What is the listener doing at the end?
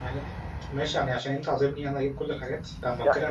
taking over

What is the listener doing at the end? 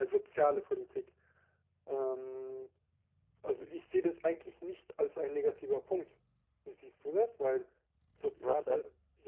listening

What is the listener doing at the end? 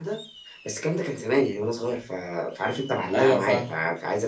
listening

